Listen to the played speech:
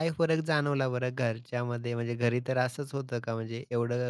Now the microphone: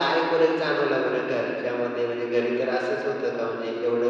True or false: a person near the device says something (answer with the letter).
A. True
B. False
B